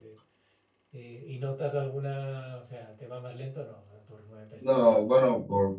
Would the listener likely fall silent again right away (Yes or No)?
No